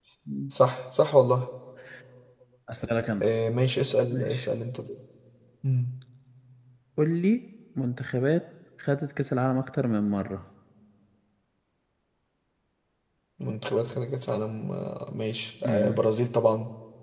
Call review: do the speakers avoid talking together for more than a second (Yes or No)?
Yes